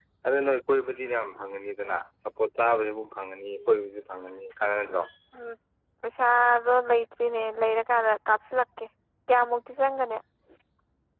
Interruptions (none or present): none